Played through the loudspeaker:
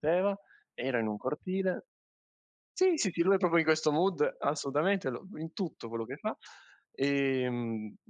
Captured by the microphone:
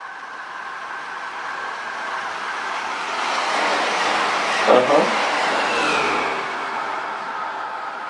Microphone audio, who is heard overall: user only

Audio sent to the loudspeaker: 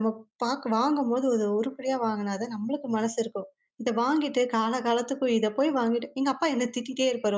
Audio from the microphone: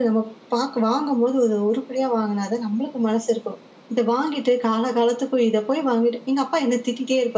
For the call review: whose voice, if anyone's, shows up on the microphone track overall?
echo only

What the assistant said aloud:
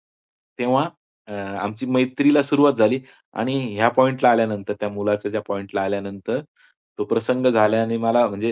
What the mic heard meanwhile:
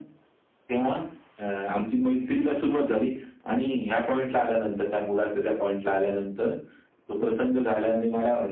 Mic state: echo only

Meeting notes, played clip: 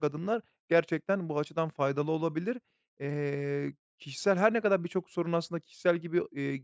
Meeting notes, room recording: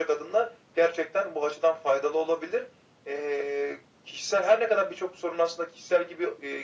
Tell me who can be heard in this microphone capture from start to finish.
echo only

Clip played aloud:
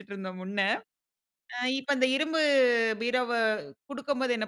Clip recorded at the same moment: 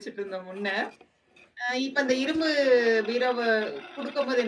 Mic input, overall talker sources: echo only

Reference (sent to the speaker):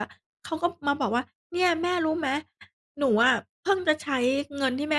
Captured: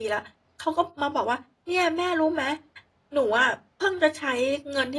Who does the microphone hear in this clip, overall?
echo only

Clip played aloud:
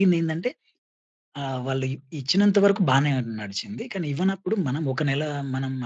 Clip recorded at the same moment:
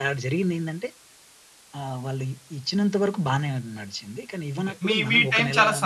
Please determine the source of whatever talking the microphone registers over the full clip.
both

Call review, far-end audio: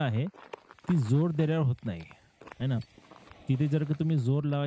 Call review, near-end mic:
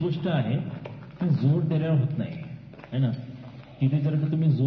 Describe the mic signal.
echo only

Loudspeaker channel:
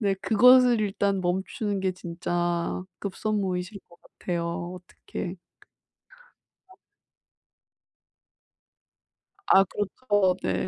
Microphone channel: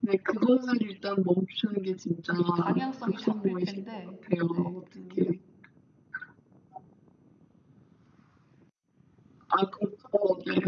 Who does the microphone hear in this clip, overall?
both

